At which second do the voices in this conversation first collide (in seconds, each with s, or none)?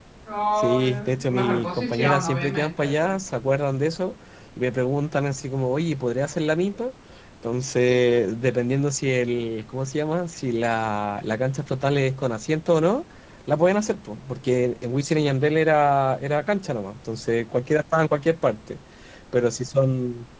0.6 s